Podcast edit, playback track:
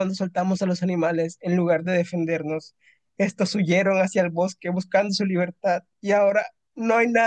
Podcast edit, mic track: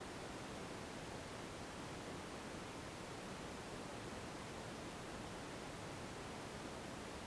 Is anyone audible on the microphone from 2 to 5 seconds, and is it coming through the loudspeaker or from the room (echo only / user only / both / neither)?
neither